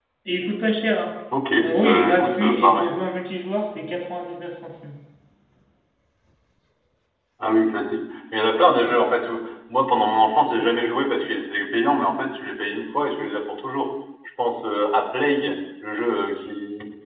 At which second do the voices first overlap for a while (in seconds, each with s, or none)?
1.6 s